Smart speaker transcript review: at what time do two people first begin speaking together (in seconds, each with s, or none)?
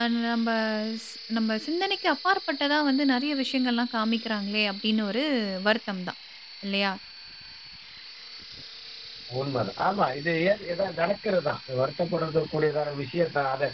none